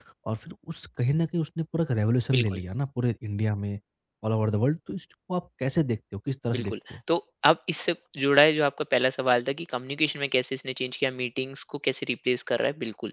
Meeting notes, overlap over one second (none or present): none